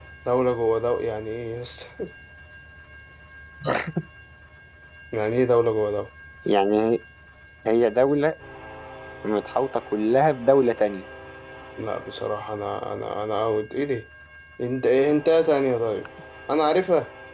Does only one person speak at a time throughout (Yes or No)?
Yes